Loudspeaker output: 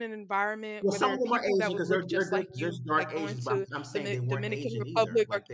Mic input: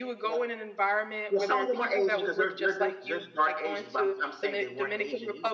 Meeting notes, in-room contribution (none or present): none